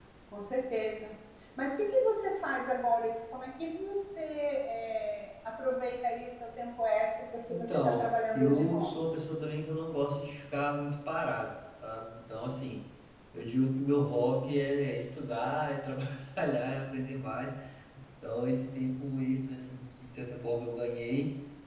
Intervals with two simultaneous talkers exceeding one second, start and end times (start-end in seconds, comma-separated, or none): 7.5-9.1